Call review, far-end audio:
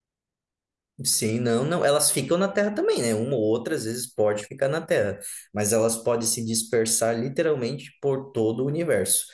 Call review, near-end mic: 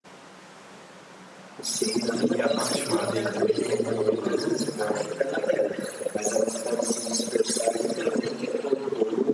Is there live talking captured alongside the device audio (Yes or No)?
Yes